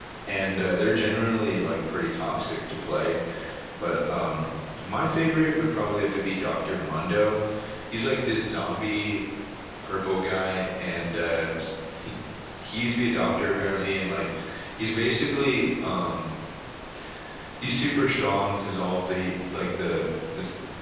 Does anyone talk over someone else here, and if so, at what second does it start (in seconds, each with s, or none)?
none